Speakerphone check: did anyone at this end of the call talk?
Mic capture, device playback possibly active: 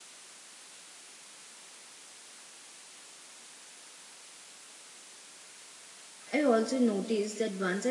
Yes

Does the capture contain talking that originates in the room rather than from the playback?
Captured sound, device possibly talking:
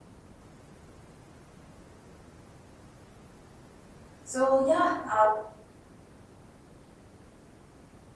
Yes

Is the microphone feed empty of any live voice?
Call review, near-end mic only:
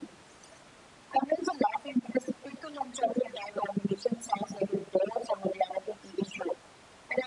Yes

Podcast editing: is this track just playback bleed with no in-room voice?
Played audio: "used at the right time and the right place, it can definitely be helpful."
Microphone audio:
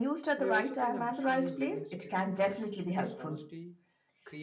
No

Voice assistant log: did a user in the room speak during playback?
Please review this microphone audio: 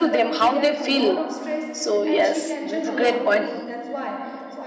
Yes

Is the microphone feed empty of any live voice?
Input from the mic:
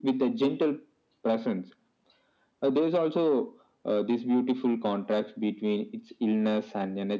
Yes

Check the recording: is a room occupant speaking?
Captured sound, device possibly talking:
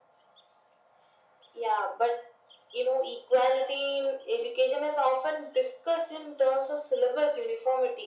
No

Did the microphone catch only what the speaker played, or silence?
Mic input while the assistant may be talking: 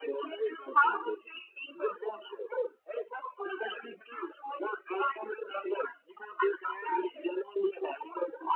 Yes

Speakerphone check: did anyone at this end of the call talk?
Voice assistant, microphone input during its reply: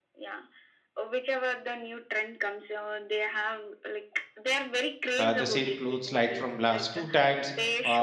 Yes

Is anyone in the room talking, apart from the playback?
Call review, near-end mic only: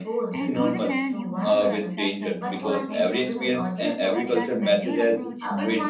Yes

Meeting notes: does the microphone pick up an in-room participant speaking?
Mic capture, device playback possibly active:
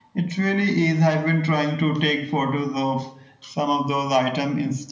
No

